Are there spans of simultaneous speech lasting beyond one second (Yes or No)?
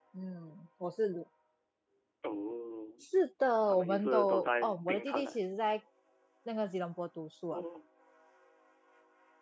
Yes